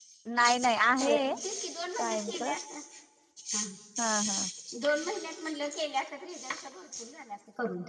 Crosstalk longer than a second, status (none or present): none